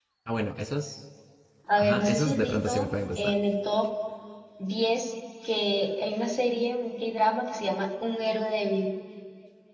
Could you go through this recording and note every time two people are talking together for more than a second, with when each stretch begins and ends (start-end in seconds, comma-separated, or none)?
1.8-3.3